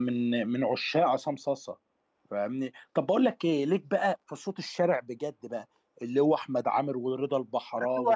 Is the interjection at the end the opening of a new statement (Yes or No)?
Yes